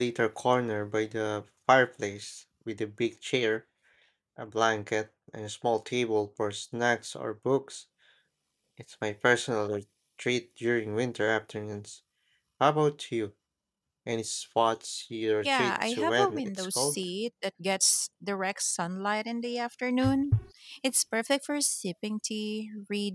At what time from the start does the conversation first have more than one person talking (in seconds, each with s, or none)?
15.4 s